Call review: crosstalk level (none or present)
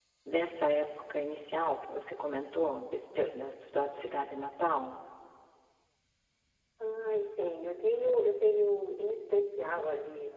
none